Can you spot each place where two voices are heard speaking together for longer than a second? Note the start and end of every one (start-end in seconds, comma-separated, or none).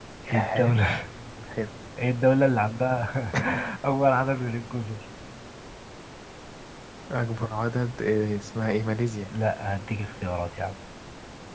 none